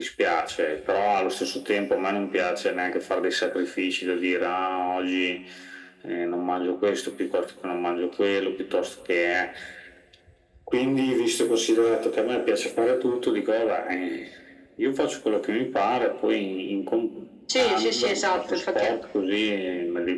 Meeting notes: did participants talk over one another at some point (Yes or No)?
Yes